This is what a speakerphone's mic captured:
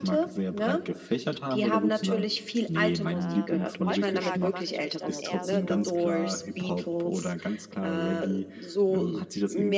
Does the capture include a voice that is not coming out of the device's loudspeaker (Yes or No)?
Yes